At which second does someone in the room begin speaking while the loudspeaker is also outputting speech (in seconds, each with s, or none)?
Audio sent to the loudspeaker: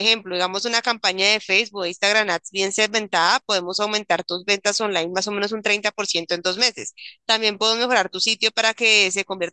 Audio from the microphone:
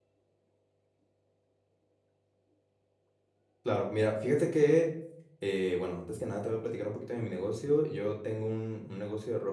3.6 s